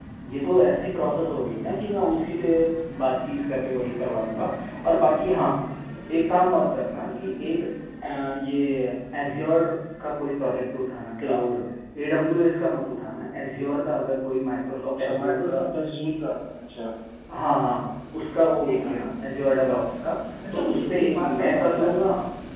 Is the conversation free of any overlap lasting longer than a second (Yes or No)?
No